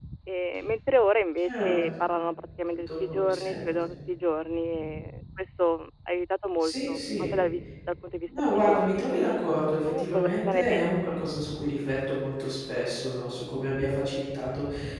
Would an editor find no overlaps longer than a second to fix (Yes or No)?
No